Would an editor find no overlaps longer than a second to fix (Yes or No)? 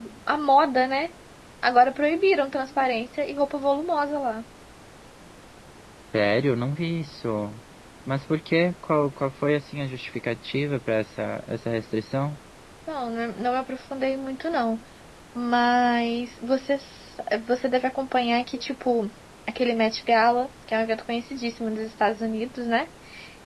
Yes